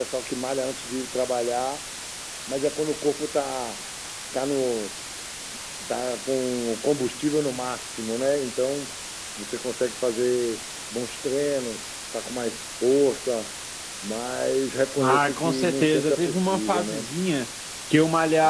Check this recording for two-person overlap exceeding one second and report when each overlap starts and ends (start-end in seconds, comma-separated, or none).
15.0-17.1